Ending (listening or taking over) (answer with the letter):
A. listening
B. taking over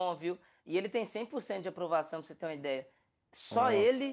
A